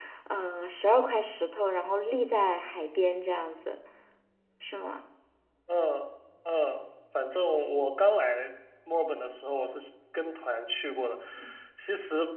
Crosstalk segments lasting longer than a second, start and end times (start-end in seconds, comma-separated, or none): none